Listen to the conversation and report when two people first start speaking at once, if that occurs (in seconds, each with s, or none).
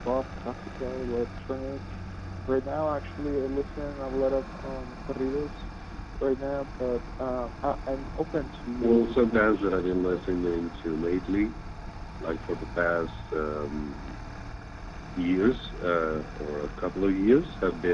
8.8 s